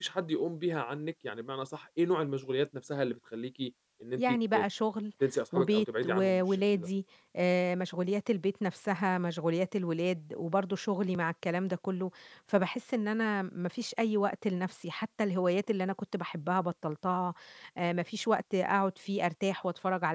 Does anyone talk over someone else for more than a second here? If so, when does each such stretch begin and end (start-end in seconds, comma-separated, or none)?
5.5-6.9